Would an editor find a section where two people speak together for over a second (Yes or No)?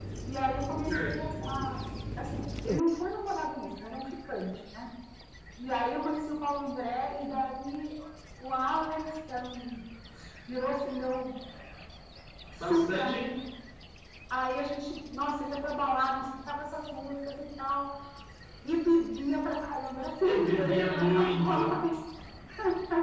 Yes